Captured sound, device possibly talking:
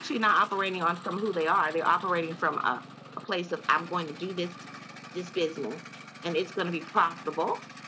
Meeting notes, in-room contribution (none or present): none